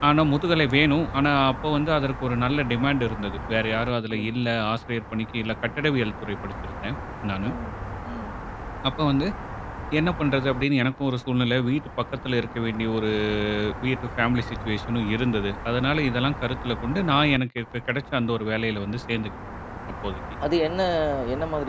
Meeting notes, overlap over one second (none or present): none